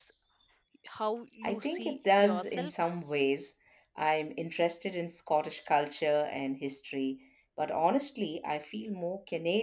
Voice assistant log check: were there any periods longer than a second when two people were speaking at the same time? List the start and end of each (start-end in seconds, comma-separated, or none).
1.4-2.7